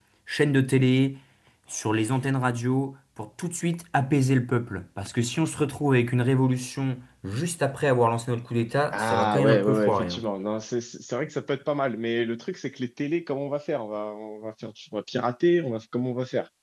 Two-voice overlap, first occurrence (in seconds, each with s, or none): 8.9 s